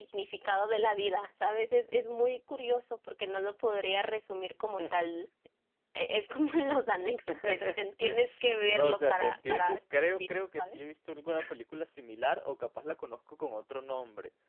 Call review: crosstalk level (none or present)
present